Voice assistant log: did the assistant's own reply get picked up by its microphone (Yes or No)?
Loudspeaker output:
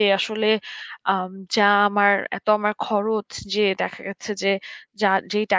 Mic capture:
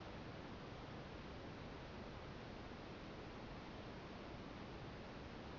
No